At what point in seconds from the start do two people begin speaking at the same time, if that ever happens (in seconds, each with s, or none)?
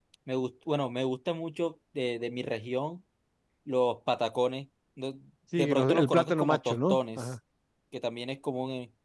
5.6 s